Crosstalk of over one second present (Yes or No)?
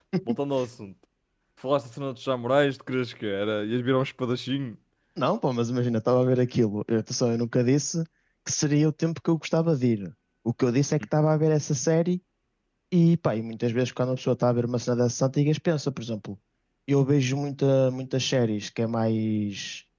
No